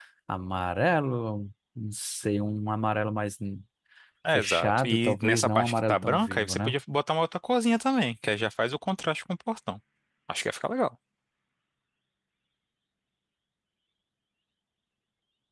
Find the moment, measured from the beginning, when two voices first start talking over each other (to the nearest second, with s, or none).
4 s